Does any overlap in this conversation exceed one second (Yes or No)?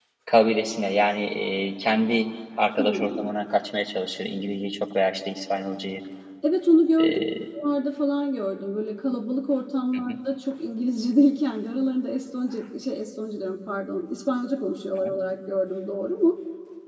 No